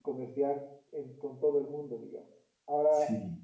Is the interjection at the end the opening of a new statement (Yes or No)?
No